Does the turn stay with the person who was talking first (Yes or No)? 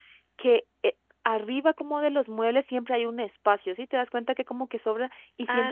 Yes